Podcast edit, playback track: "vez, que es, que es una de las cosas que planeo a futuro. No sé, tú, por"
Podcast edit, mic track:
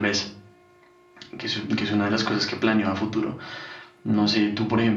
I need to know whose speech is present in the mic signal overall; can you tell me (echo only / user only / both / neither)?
echo only